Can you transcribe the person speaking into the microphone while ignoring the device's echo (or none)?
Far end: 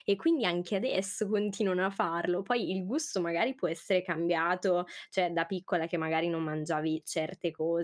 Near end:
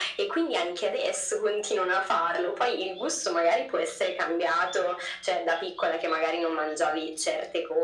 none